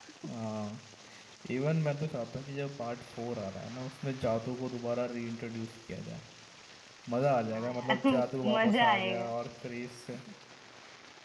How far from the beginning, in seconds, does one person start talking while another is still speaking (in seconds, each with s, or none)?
7.6 s